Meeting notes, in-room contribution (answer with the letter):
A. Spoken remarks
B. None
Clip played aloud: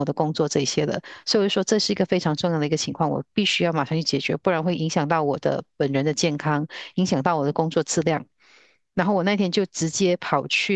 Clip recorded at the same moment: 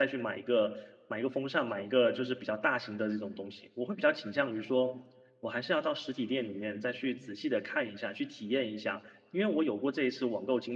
A